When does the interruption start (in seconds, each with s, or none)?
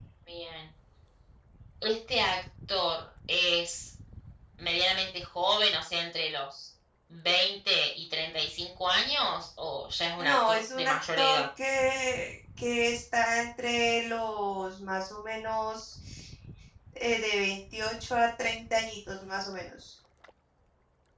10.2 s